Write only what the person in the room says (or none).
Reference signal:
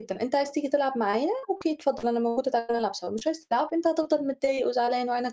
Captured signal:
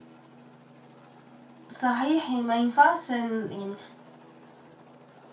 صحيح، ي ما ينفعش إن يعني، ما